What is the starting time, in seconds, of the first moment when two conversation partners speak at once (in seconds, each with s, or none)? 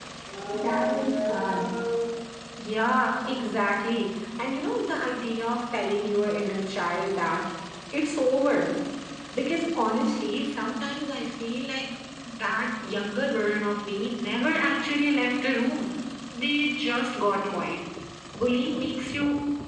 none